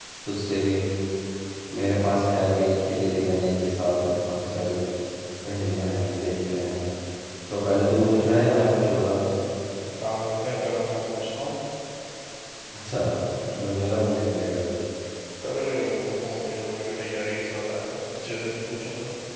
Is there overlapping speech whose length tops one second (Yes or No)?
No